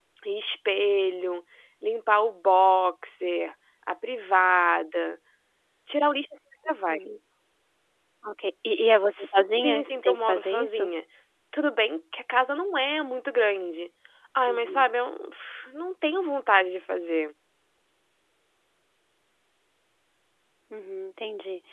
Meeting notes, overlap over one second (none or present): present